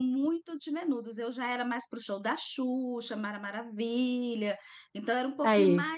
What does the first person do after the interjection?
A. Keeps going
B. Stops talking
A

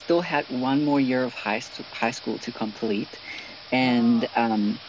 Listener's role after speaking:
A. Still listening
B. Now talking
A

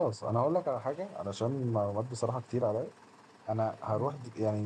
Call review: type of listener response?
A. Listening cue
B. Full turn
A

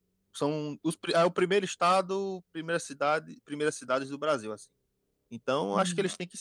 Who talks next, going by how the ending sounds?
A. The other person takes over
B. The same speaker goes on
B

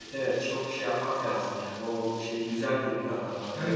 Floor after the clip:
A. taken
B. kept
A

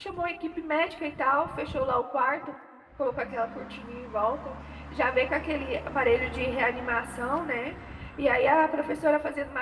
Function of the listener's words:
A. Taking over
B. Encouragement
B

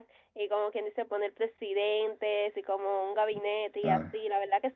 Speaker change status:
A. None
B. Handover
A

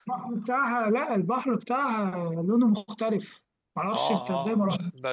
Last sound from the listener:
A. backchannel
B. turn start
B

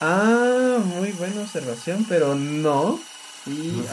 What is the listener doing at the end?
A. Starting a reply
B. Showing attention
B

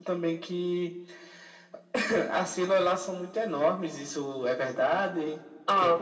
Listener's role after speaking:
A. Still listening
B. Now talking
B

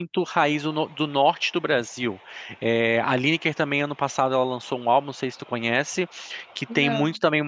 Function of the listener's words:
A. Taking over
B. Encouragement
B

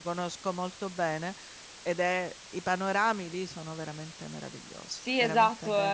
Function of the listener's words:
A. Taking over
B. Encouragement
A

